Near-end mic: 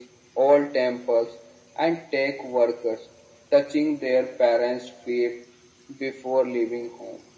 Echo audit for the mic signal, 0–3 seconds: echo only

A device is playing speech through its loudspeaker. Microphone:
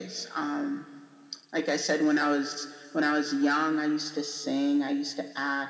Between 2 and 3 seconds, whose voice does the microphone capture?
echo only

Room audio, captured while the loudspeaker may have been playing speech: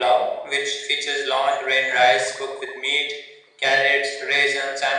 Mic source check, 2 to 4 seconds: echo only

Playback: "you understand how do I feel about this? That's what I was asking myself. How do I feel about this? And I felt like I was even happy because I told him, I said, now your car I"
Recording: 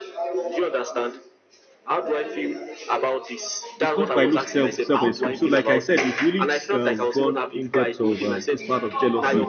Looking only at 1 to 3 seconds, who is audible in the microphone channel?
echo only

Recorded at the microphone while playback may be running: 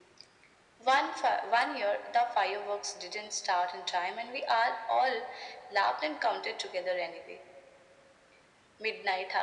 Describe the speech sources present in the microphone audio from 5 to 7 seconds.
echo only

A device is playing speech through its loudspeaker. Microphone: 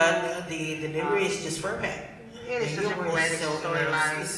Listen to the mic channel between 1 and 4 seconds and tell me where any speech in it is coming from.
both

